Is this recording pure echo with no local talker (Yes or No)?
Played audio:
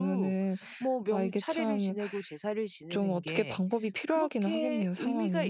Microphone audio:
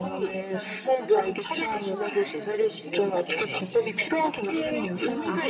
No